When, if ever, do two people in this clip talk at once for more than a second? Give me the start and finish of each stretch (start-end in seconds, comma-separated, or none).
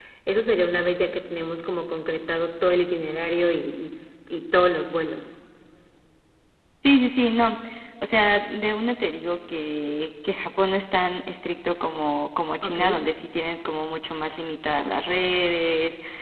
none